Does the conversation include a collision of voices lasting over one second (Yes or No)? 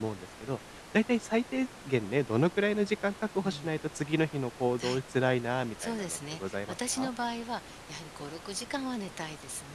Yes